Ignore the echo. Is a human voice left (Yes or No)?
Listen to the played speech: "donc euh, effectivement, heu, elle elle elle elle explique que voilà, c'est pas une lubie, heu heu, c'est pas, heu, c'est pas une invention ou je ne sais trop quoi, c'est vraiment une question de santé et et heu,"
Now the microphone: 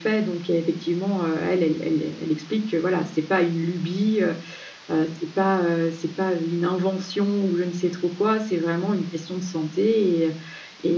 No